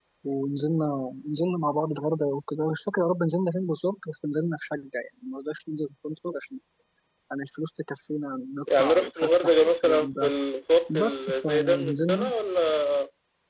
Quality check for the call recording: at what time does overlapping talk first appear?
9 s

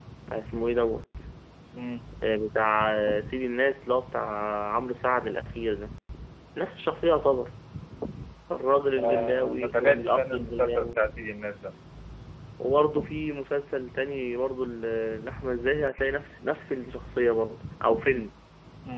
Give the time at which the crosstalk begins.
9 s

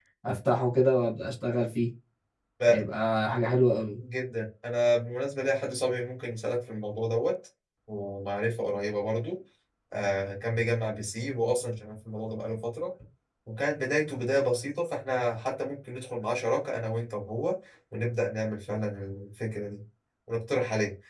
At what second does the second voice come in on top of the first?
none

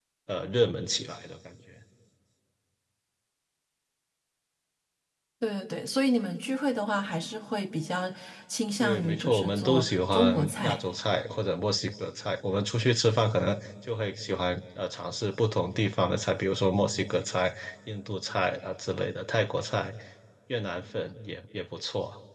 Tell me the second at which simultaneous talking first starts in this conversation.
9 s

